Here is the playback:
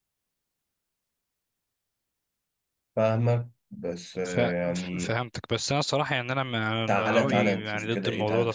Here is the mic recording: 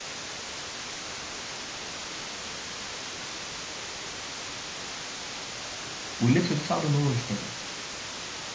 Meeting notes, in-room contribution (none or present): present